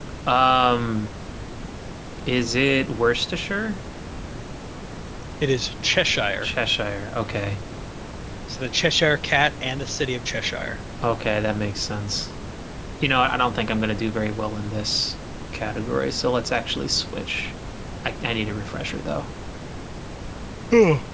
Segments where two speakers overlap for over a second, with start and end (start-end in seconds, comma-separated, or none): none